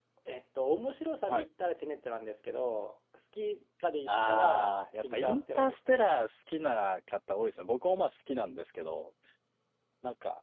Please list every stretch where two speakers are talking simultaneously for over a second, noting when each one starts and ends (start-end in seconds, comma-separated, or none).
4.1-6.3